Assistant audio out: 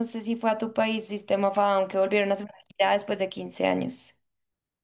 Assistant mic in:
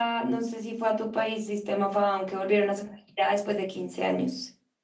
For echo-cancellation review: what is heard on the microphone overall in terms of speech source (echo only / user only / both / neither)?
echo only